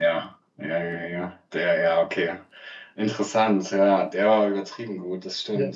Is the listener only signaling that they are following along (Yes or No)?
No